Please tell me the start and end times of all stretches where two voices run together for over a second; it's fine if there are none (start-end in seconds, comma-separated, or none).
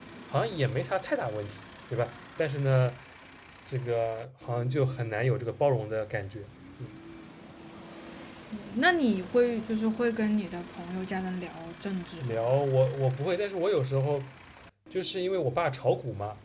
none